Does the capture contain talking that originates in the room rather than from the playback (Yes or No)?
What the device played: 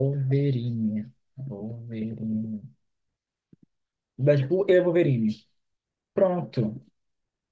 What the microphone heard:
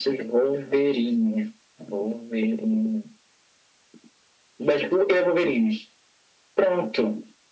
No